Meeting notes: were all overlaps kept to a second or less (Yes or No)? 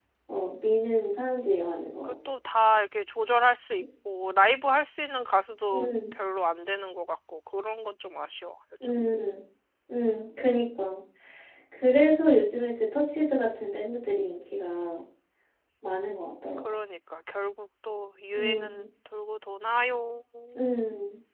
Yes